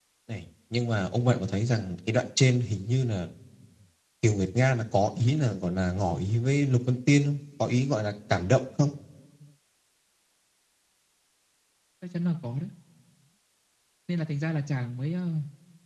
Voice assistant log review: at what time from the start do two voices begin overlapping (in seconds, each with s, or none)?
none